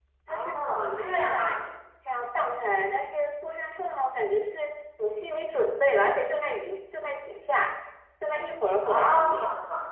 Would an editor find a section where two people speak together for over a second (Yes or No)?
Yes